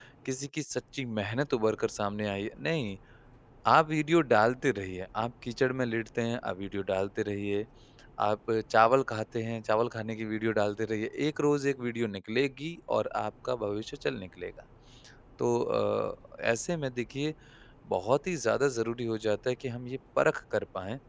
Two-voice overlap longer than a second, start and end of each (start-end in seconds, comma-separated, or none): none